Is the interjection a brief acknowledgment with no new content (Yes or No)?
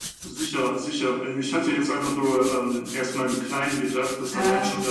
Yes